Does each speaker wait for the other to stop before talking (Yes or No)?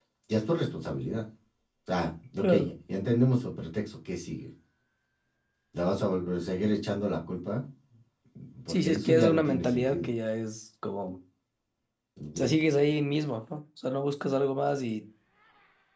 No